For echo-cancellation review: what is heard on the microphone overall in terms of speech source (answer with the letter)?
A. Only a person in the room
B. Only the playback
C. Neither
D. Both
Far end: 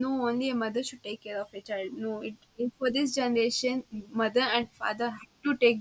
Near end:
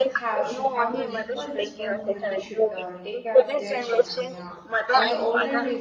D